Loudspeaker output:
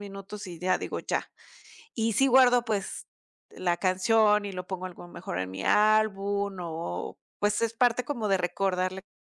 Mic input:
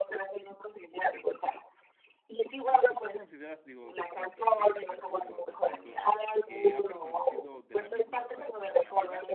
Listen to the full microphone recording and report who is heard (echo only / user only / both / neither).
both